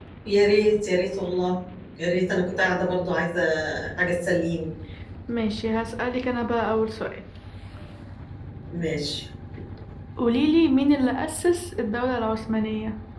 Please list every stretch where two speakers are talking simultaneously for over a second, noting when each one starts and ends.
none

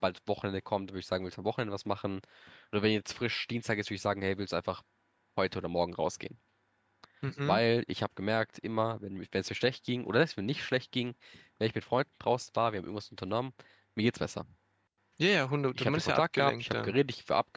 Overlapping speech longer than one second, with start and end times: 15.8-17.0

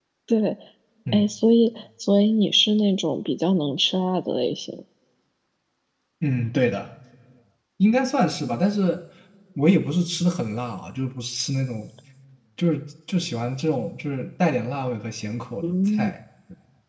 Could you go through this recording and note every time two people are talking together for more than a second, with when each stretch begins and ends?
none

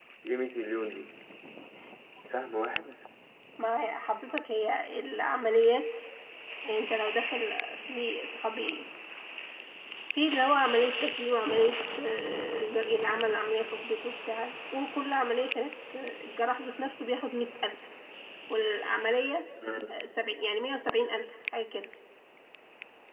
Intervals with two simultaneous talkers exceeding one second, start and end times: none

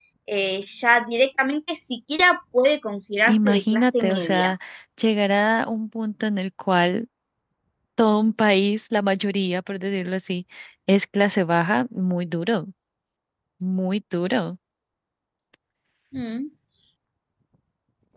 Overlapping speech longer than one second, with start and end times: 3.2-4.5

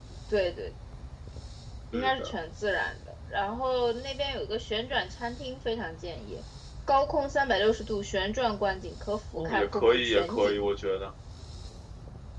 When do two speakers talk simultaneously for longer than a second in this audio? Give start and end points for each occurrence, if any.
9.4-10.7

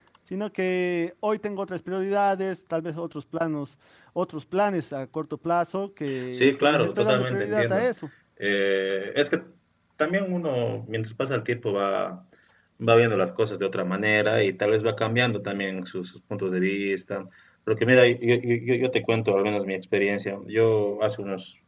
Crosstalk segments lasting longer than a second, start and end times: 6.3-7.9

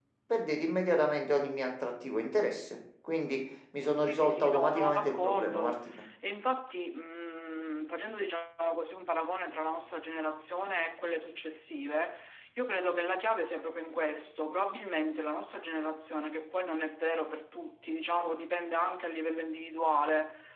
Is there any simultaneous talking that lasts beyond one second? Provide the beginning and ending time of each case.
4.0-6.0

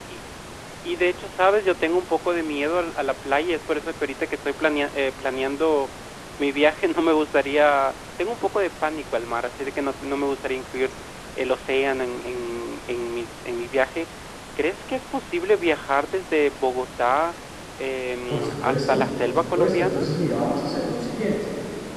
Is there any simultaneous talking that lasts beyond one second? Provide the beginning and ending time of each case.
18.3-20.1

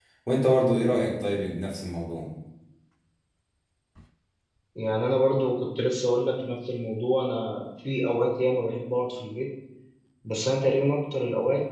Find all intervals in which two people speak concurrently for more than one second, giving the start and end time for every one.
none

